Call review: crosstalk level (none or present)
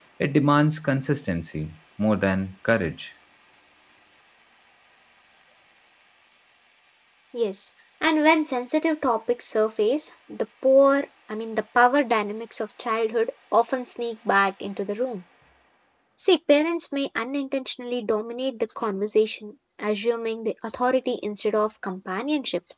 none